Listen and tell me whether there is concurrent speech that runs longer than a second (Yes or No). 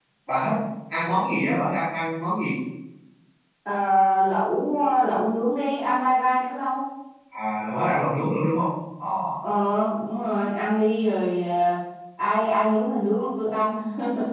No